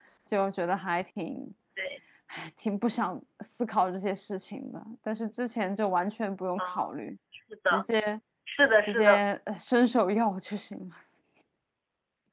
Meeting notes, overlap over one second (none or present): none